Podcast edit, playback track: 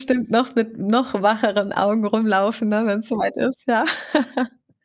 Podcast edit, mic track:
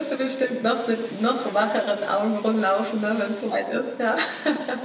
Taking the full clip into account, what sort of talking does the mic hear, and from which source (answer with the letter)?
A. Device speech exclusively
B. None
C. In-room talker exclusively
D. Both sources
A